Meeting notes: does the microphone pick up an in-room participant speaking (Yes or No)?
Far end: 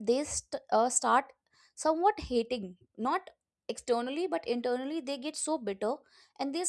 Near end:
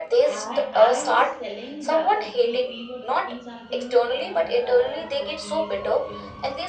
Yes